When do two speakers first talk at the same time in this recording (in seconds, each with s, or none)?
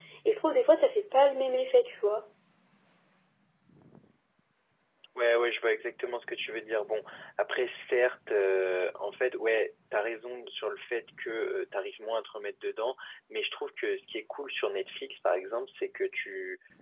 none